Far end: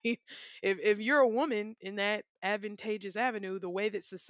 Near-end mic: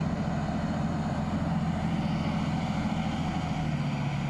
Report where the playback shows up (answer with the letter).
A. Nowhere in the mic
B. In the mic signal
A